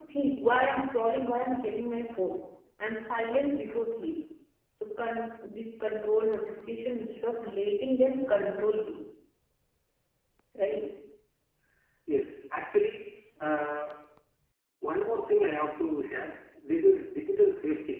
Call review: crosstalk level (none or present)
none